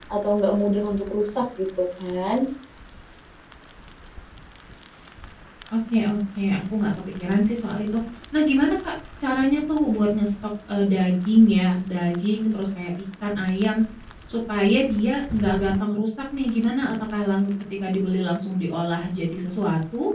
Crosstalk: none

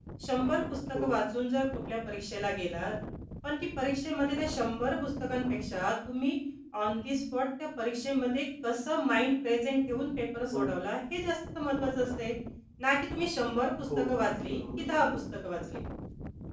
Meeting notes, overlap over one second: present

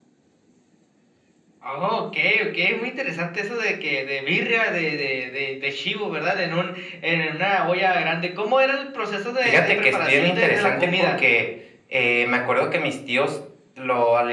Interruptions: present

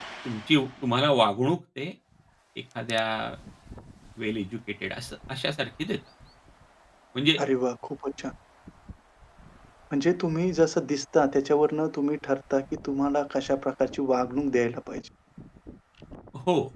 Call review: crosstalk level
none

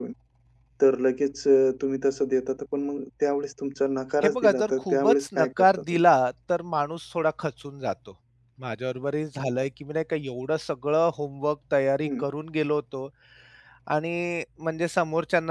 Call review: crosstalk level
present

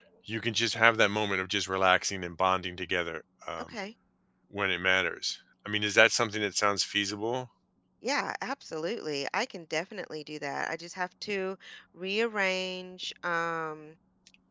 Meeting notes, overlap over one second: none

